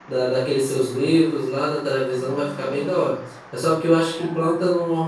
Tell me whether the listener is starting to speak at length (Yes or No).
No